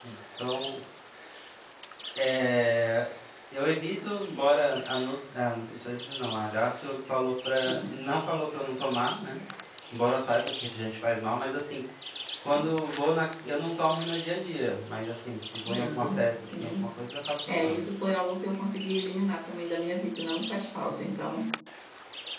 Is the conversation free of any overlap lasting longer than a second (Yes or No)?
No